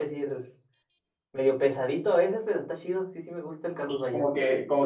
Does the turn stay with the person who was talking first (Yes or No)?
No